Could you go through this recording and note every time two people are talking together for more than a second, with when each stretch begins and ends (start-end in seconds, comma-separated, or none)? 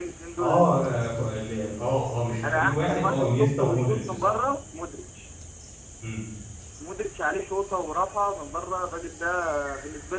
2.4-4.3